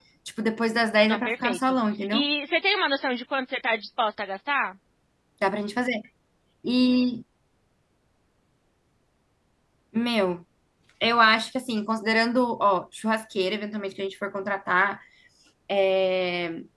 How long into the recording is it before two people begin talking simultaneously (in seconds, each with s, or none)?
1.1 s